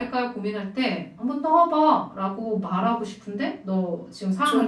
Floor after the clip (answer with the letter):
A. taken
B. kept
A